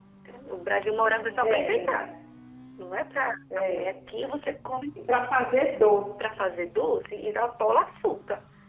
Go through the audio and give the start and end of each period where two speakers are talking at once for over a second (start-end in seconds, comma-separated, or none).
0.8-2.1